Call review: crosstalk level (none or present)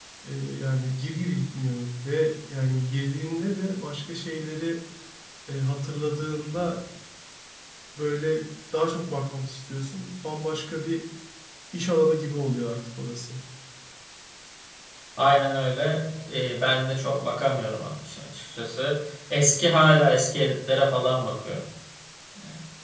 none